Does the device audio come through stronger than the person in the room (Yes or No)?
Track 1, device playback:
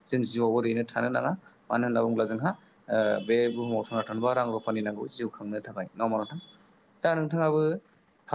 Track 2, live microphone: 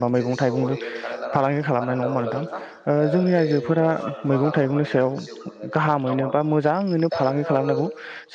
No